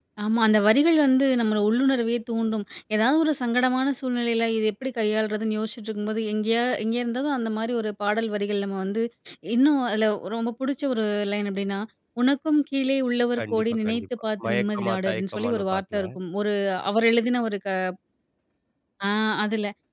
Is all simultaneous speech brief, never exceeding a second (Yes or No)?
No